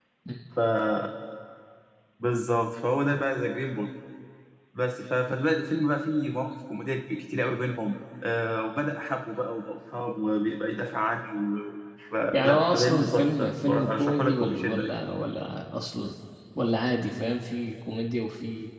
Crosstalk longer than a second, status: present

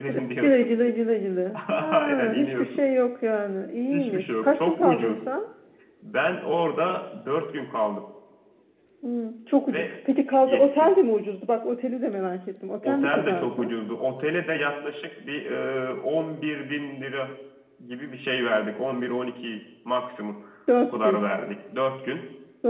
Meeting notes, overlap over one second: present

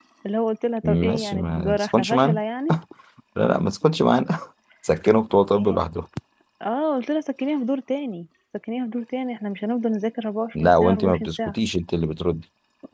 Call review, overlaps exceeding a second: present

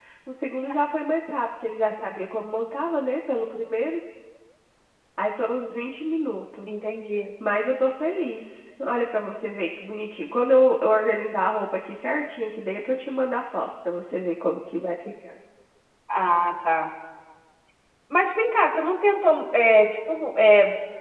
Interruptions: none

